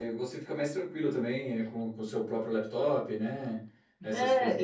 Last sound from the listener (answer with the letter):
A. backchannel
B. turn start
B